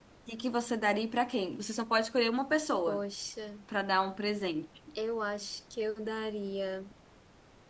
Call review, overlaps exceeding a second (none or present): none